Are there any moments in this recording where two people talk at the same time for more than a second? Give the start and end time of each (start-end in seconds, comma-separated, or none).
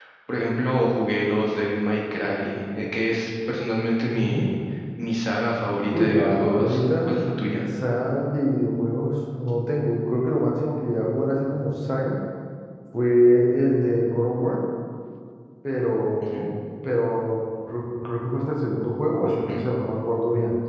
5.9-7.2